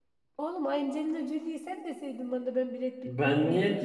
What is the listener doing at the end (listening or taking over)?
taking over